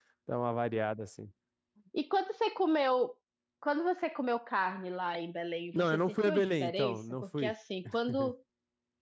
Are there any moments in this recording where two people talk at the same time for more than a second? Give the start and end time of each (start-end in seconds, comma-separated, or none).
5.7-7.5